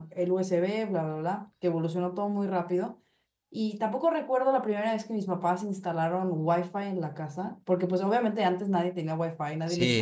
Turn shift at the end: Yes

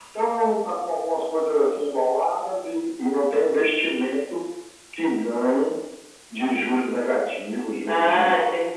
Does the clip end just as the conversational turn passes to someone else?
Yes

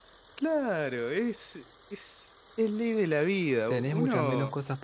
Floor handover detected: Yes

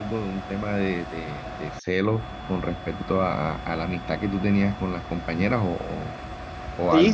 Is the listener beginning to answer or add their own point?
Yes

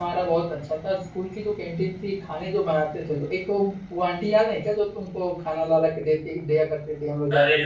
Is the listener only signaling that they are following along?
No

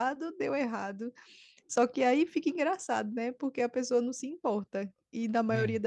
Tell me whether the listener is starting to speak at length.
No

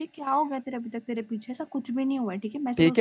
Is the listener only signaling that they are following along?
No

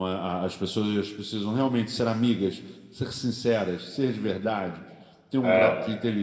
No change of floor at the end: Yes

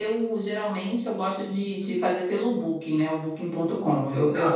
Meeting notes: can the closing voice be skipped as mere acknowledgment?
No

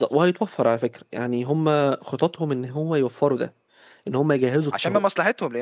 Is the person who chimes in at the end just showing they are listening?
No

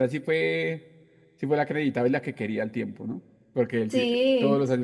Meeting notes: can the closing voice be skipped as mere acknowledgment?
Yes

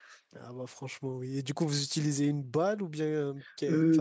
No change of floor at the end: No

